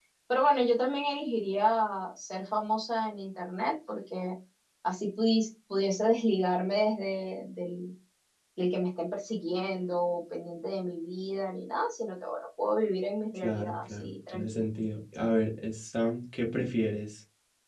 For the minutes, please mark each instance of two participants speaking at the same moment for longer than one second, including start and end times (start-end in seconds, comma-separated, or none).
13.4-14.6